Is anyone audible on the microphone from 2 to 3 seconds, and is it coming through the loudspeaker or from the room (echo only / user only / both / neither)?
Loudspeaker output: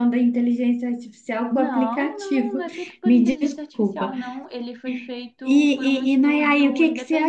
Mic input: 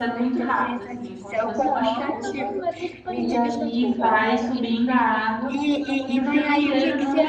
both